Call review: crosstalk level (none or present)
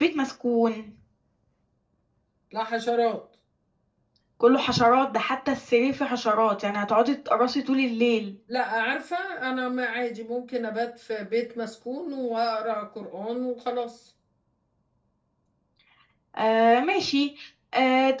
none